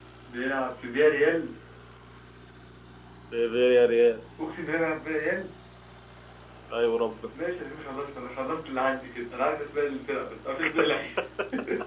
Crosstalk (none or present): none